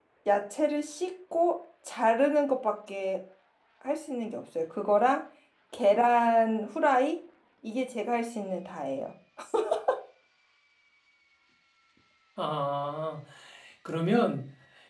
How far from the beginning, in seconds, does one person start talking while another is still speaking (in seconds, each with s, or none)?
none